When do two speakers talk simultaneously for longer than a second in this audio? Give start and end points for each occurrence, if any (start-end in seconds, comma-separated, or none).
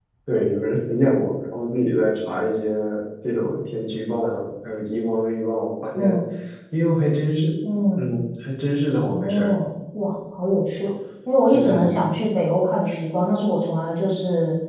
none